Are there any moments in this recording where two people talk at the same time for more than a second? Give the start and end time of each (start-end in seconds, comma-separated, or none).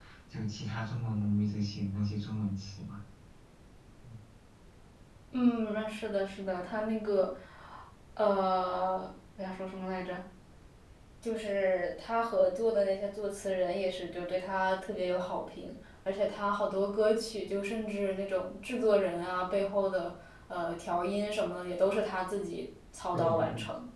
none